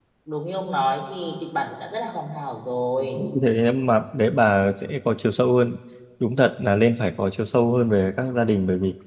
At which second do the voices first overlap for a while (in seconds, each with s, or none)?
none